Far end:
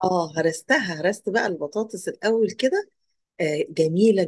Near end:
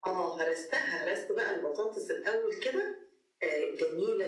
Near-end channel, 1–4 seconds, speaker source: echo only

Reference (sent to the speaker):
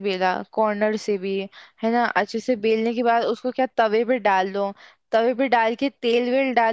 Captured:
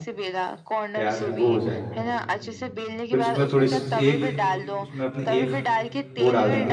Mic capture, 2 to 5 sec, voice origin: both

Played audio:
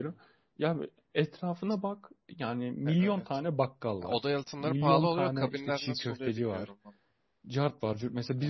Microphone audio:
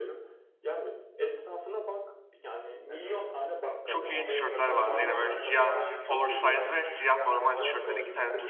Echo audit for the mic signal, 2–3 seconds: echo only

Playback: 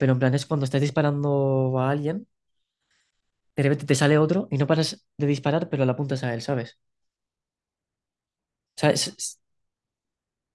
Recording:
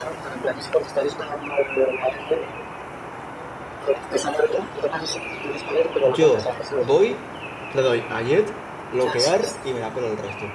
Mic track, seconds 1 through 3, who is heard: echo only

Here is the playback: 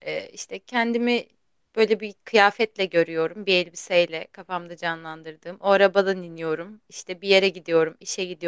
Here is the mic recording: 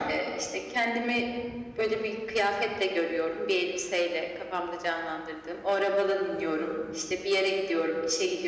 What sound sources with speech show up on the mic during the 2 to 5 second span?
echo only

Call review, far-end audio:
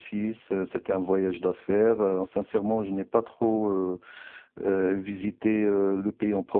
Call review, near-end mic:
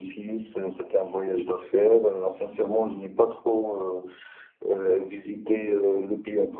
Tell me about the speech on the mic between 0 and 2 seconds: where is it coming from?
echo only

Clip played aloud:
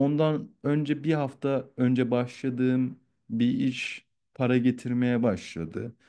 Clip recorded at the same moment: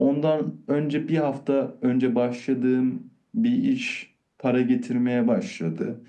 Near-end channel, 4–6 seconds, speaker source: echo only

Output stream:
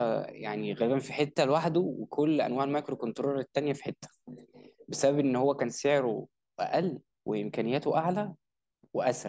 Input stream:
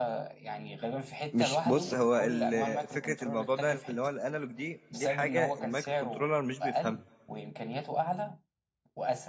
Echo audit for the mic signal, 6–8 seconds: both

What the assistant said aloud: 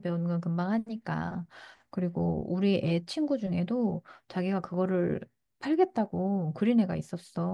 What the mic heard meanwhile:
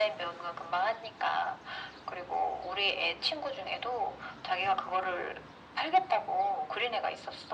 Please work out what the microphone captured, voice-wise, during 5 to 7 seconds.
echo only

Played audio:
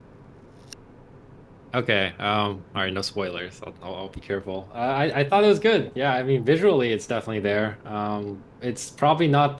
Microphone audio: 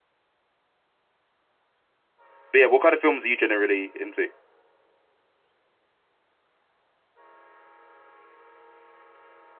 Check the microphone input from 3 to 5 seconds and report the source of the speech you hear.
user only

